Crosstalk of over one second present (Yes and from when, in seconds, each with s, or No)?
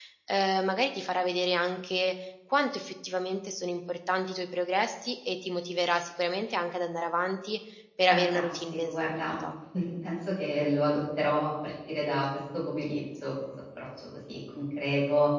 Yes, from 8.1 s